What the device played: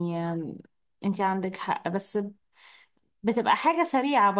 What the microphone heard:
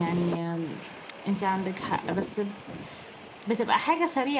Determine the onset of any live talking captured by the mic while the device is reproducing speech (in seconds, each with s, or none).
none